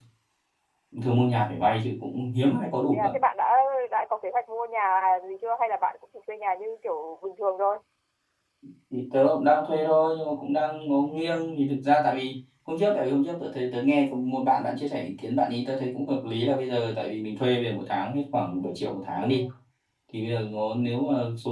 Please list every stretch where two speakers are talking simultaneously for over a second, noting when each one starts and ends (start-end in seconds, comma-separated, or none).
none